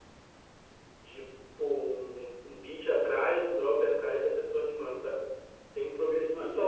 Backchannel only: Yes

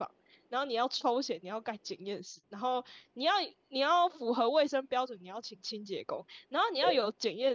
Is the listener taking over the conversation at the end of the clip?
No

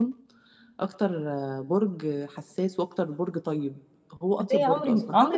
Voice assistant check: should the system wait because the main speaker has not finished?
No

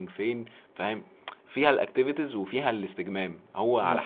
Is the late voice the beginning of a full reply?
No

